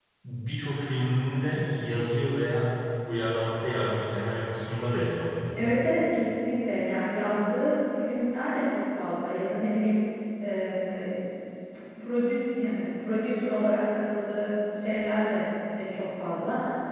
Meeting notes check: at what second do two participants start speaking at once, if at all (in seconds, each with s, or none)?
none